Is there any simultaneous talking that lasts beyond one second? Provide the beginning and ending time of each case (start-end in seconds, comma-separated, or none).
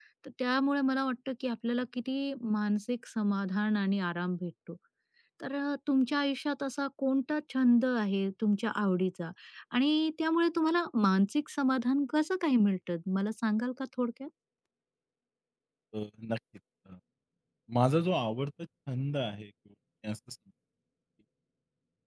none